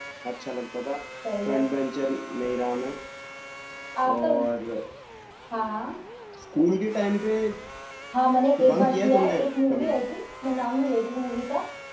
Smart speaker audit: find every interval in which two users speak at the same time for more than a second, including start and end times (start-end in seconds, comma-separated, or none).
8.7-9.9